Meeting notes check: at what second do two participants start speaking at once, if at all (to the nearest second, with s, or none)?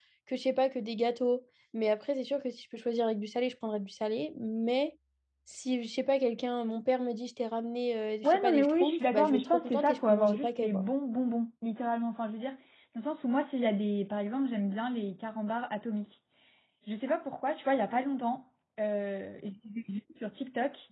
8 s